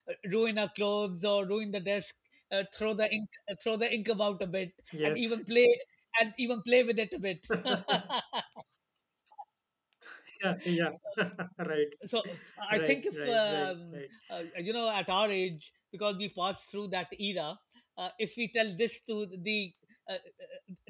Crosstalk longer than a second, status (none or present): present